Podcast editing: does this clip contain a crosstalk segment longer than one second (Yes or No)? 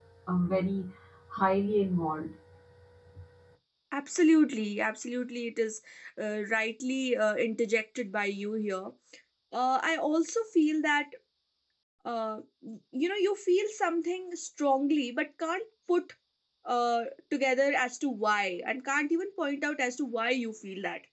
No